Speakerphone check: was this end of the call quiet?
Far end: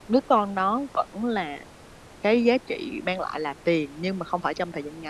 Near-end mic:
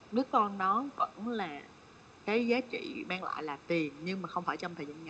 Yes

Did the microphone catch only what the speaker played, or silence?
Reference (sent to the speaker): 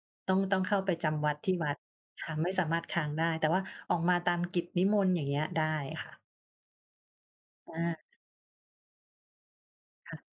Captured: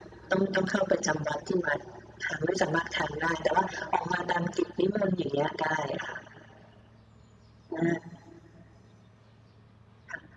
Yes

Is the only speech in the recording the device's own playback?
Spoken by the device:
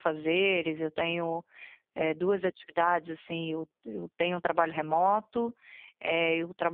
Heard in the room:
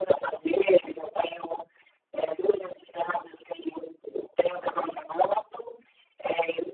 Yes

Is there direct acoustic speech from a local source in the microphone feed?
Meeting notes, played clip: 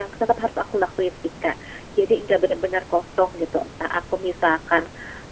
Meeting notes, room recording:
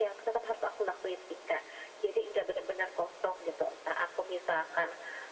No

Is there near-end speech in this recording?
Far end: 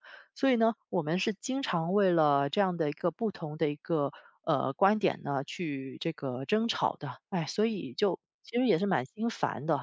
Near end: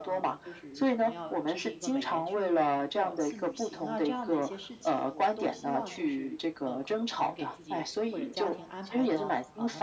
Yes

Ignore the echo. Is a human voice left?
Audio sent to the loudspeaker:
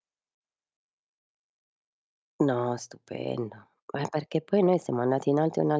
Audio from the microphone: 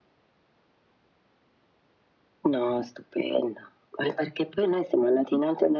No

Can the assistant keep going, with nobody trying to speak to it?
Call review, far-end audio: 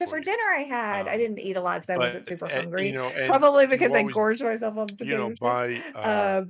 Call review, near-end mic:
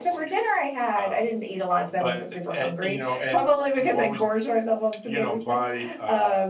Yes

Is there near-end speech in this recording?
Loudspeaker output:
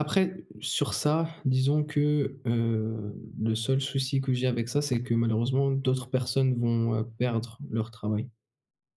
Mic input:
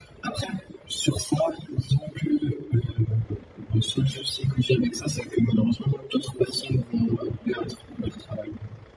No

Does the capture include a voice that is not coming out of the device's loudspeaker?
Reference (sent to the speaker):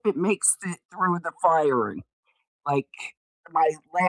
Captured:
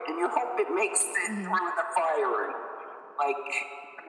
Yes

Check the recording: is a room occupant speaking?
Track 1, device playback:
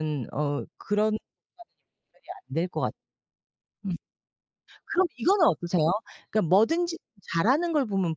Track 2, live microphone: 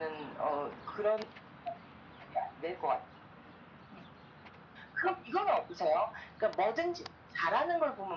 No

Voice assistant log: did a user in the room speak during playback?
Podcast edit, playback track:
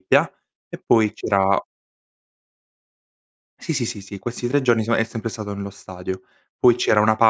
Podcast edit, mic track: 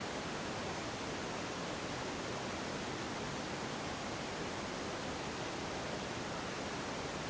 No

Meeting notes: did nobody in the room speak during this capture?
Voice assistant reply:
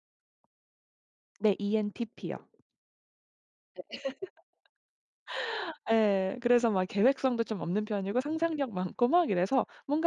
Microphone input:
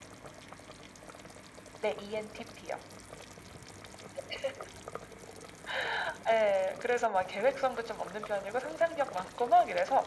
Yes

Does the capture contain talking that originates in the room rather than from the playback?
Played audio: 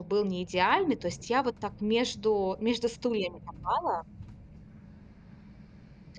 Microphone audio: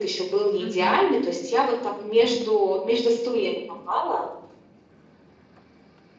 Yes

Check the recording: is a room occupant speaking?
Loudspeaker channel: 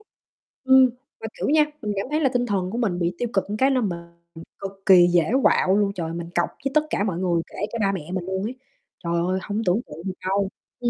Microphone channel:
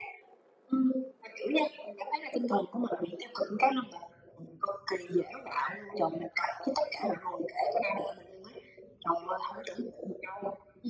No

